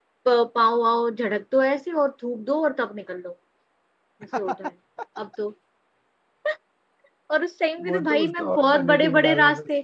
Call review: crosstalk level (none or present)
present